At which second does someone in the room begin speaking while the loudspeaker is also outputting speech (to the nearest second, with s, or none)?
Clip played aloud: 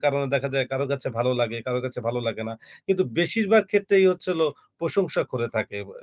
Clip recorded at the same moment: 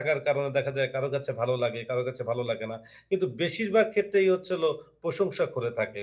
none